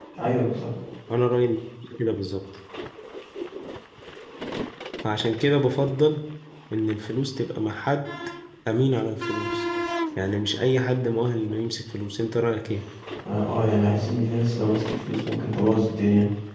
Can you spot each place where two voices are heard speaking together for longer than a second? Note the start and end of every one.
none

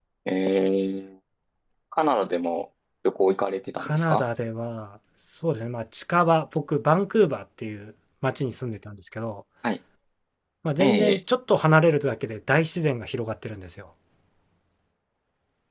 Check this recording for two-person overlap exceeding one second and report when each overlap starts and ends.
none

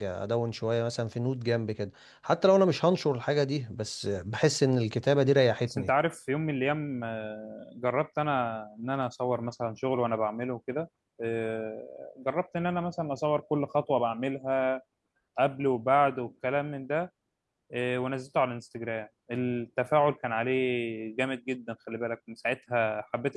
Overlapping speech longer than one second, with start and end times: none

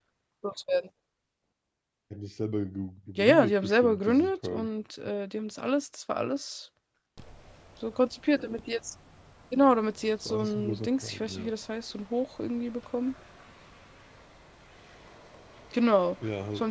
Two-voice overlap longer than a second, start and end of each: 3.2-4.7, 10.2-11.5

